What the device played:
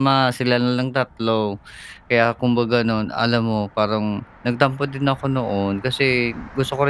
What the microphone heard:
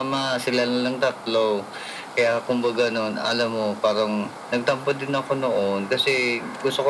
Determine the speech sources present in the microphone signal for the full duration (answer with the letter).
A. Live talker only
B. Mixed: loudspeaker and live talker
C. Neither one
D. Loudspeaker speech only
D